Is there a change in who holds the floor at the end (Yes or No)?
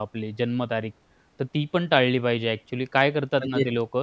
No